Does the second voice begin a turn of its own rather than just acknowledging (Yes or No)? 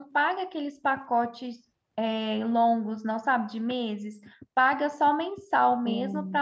No